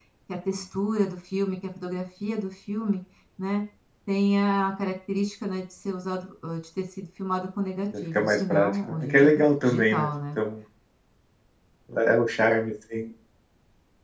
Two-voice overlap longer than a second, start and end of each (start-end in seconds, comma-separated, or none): 8.0-10.1